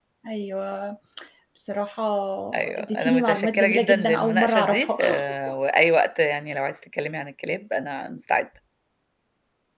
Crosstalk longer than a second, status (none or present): present